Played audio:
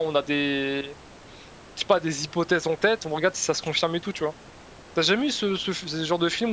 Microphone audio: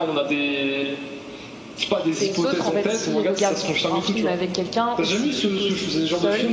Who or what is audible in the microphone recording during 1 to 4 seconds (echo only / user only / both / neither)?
both